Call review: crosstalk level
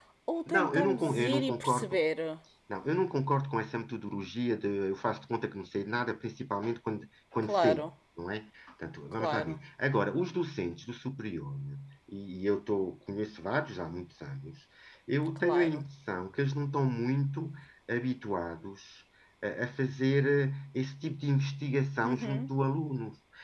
present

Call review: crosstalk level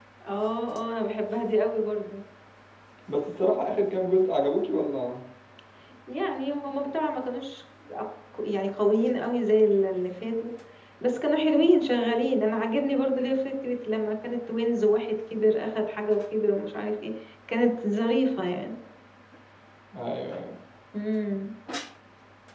none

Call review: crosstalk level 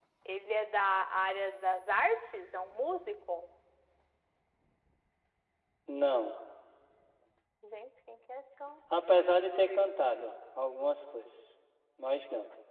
none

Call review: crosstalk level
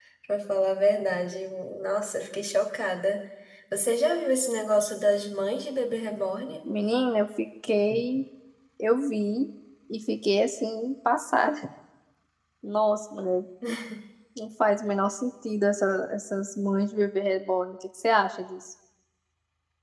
none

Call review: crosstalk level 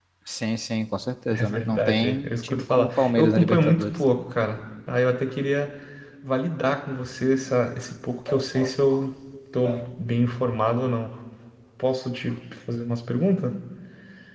present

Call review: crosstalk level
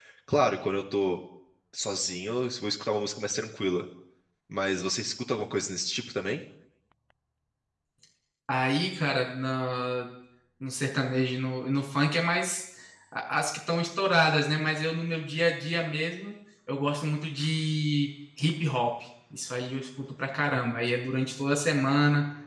none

